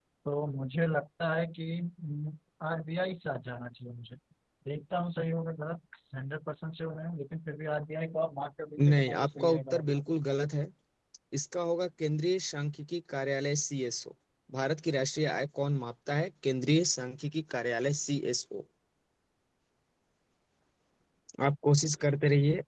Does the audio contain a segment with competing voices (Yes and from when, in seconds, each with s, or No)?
Yes, from 8.8 s